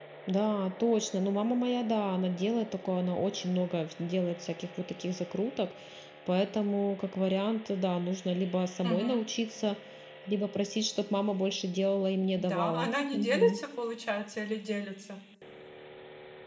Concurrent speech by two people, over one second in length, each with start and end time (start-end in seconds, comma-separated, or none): 12.4-13.6